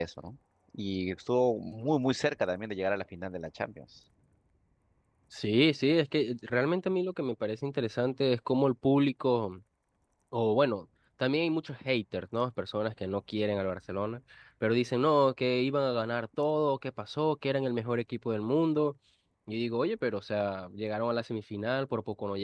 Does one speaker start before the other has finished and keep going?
No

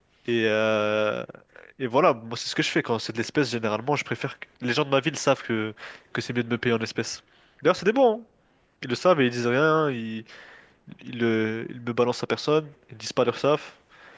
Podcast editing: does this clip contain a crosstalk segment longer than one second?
No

